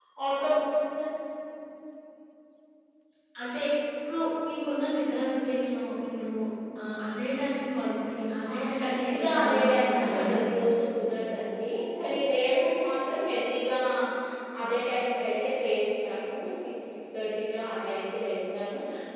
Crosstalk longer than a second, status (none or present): present